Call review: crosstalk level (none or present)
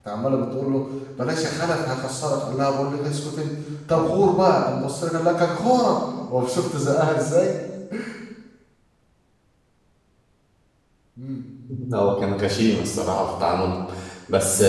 none